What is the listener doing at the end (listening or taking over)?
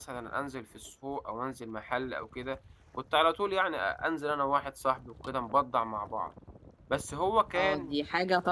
taking over